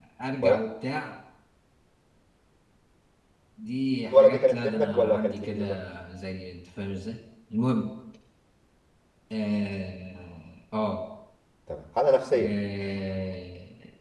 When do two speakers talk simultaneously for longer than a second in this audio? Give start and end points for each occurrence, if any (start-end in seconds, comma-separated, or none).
4.1-5.8